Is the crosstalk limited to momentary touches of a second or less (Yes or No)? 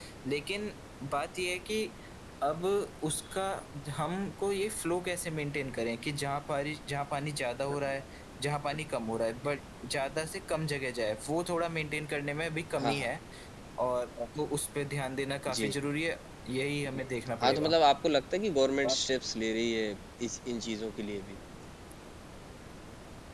Yes